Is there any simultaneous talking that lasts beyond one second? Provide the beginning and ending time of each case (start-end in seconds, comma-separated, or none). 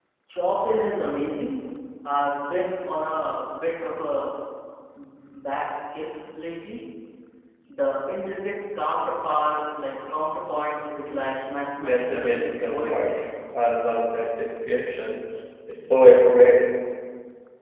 none